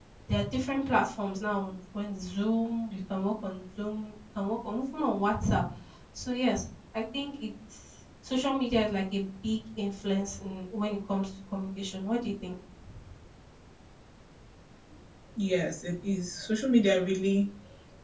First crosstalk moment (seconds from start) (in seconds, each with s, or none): none